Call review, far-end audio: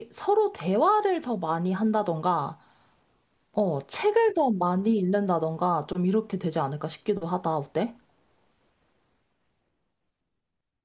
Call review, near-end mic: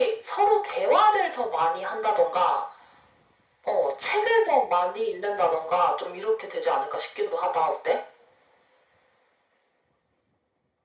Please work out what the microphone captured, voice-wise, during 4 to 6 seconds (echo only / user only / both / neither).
echo only